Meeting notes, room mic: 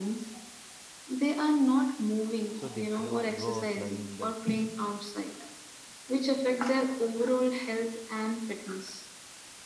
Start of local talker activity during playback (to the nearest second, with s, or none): 3 s